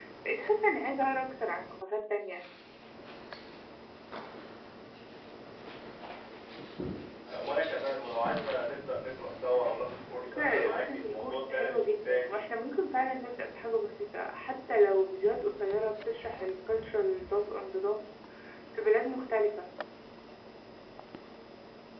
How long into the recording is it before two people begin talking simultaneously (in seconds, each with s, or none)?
10.2 s